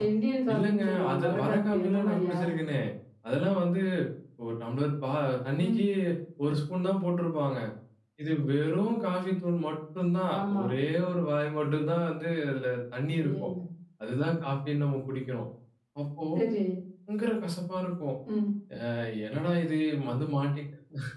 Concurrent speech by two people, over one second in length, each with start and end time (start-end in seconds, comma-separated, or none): 0.5-2.4